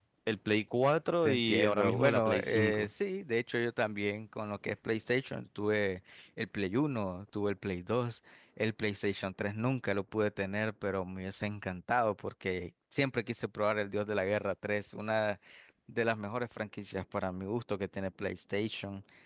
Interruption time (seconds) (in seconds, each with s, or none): 1.2 s